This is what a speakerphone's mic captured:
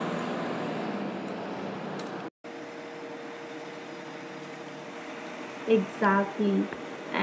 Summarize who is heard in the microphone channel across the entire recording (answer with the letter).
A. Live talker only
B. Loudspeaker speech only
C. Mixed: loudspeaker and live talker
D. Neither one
A